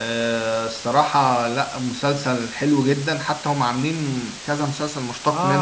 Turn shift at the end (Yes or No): Yes